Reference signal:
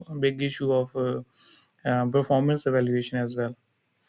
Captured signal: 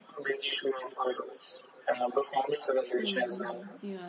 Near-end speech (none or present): present